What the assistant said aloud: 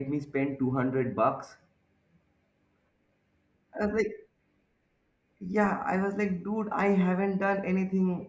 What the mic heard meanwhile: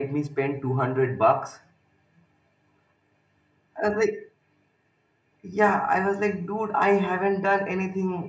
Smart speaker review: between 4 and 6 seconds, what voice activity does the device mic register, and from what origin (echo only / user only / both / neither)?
echo only